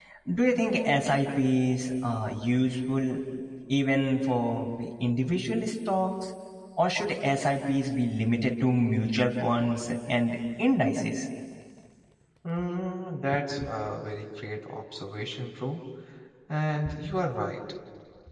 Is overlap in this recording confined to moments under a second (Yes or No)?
Yes